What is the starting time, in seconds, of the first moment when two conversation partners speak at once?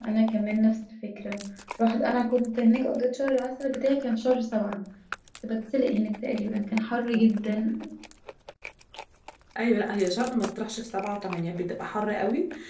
none

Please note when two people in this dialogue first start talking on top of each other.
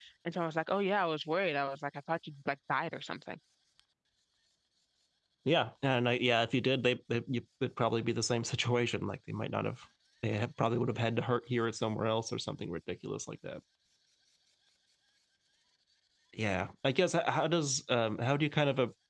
none

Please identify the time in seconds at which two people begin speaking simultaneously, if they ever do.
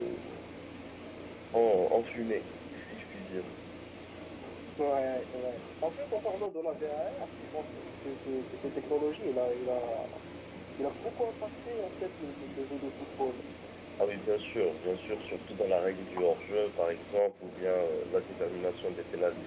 none

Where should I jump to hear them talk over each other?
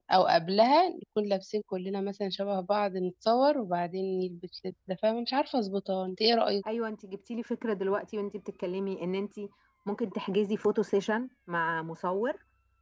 none

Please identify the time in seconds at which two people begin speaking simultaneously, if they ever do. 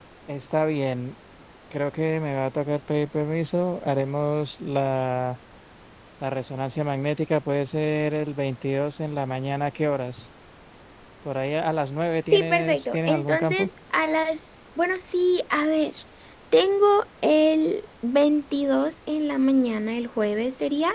12.3 s

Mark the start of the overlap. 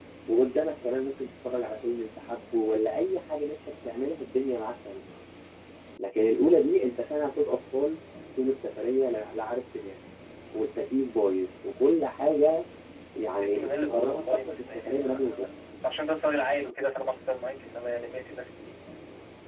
13.4 s

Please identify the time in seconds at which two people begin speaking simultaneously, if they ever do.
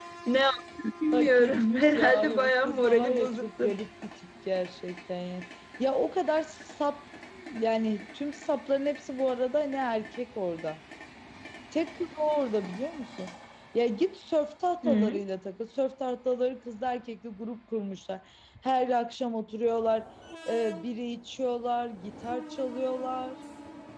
1.1 s

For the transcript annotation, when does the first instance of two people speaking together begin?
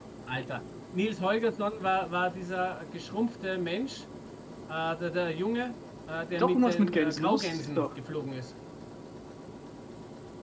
6.3 s

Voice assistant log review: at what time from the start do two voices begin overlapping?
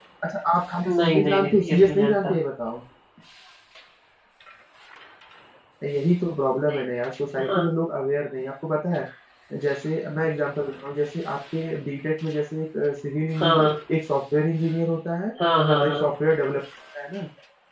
0.8 s

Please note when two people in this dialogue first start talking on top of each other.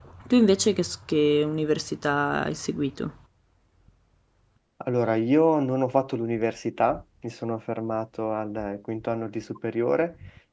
none

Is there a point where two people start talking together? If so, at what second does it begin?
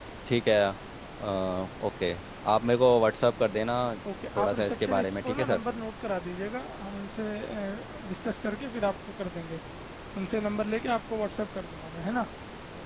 4.4 s

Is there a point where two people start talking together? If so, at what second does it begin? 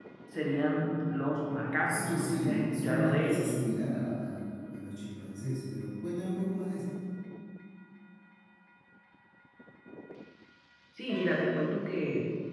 1.9 s

